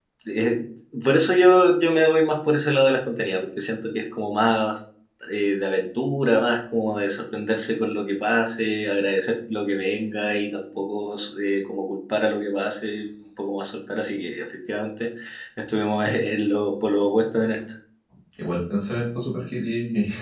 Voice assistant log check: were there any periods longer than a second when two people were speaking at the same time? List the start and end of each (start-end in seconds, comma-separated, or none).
none